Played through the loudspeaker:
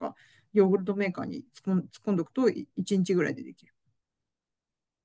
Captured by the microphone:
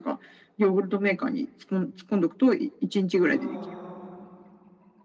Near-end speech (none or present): present